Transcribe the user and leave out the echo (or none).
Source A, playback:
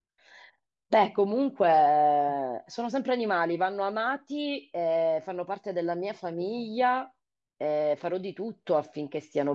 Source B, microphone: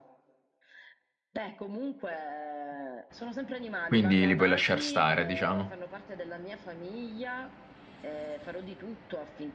quindi li puoi lasciar stare, diciamo.